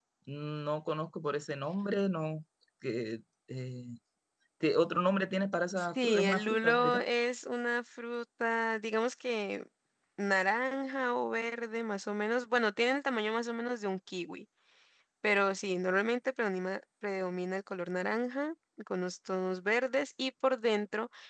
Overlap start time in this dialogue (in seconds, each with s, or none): 5.8 s